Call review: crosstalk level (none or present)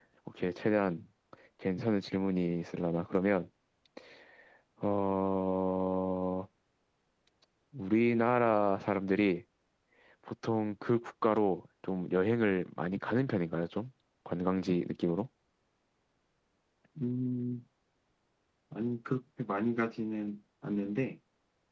none